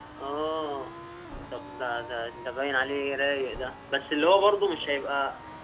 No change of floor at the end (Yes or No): Yes